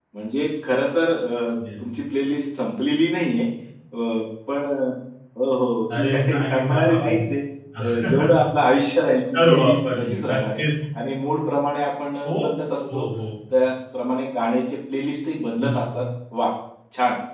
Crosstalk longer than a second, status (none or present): present